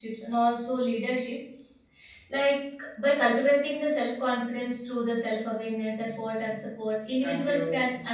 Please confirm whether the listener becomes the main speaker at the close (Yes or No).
No